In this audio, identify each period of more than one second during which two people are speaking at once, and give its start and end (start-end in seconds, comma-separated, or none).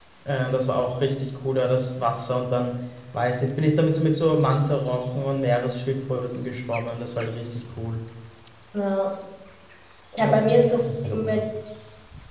10.2-11.4